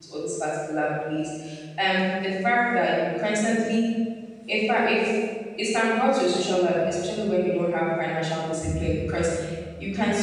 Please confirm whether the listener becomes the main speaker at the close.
No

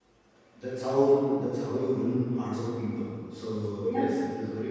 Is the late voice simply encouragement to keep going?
Yes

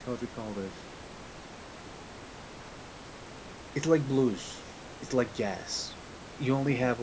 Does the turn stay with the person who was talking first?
Yes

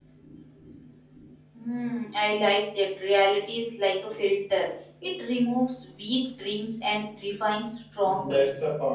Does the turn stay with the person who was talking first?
No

